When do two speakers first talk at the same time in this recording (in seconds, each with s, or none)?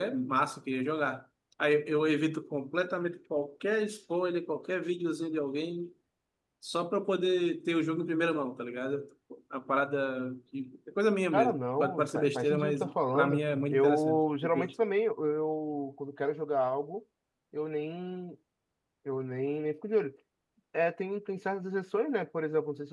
11.3 s